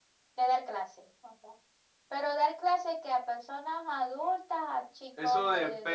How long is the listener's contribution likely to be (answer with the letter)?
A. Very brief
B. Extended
B